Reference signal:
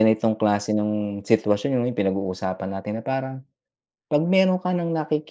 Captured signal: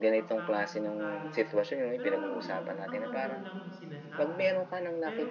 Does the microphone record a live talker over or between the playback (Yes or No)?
Yes